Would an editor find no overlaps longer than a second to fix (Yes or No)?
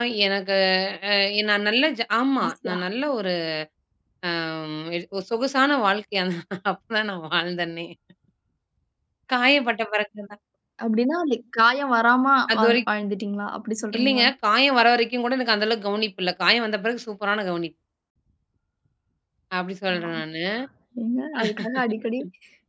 Yes